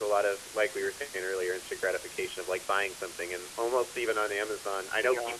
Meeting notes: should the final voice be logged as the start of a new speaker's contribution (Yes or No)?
No